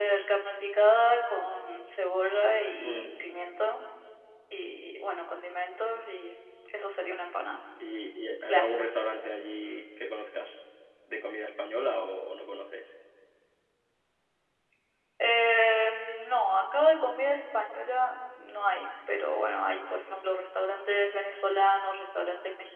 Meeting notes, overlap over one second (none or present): none